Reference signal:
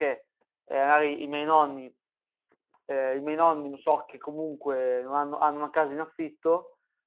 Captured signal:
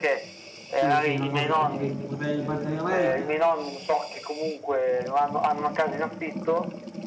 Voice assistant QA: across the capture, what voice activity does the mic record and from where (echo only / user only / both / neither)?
both